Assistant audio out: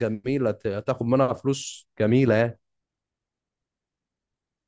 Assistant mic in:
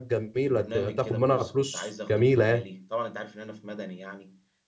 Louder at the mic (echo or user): echo